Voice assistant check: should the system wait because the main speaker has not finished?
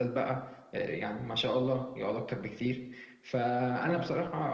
Yes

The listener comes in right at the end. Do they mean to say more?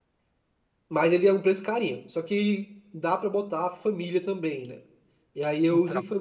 No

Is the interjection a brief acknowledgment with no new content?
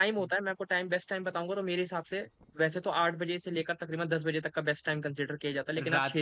Yes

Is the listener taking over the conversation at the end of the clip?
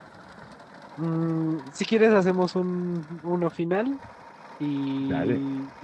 No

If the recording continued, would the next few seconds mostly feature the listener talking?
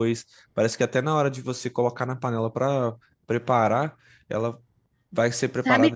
Yes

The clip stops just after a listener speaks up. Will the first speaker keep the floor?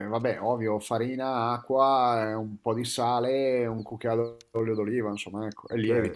No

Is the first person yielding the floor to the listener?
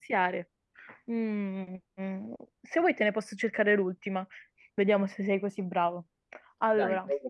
No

